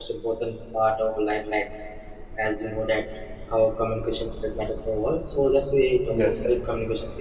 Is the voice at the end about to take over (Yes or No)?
No